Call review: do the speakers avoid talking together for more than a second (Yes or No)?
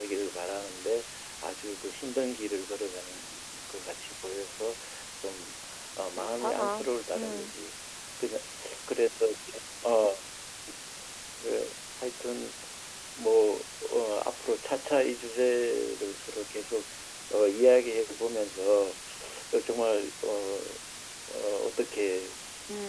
No